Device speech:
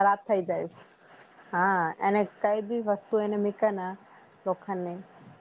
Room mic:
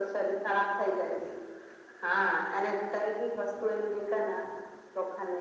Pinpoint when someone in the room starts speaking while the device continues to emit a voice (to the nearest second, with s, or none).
none